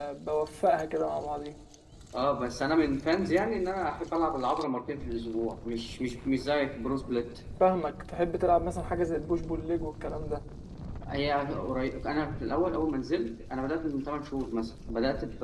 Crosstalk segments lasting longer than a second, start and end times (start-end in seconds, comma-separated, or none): none